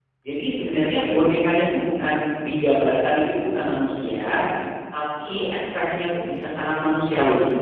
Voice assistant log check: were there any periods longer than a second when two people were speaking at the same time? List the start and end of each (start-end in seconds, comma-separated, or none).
none